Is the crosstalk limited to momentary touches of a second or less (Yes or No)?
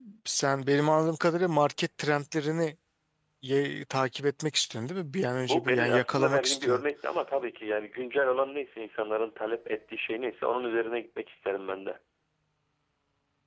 No